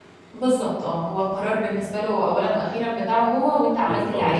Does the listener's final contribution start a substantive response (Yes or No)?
Yes